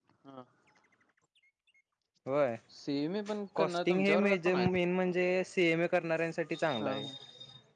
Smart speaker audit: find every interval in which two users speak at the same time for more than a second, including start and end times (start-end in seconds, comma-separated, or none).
3.6-4.8